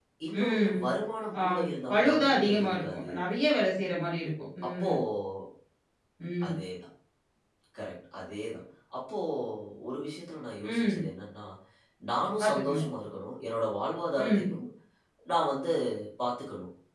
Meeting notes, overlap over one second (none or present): present